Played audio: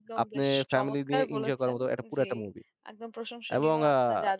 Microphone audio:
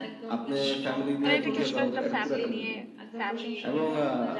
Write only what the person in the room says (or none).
মানে এটা কি আসলে একটা ফ্যামিলি নিয়ে, ফ্যামিলি